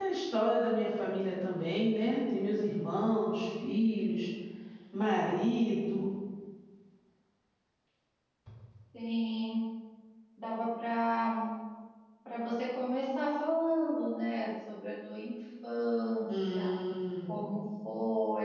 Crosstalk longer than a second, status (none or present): none